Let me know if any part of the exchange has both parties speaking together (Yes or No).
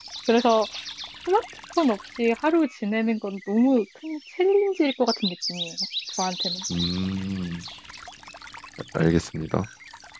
No